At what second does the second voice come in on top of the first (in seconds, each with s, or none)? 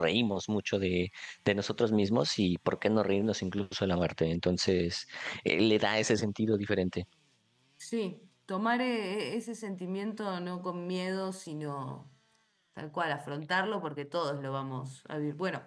none